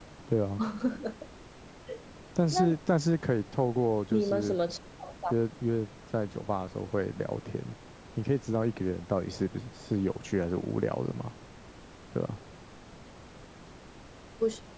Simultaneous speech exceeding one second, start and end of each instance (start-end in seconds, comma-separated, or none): none